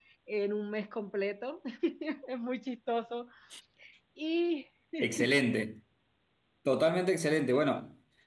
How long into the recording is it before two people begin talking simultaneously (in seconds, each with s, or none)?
none